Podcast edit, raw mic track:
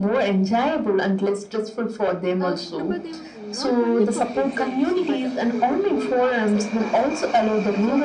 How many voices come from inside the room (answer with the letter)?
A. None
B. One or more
B